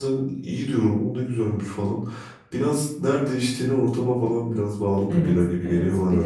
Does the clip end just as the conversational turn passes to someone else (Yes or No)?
Yes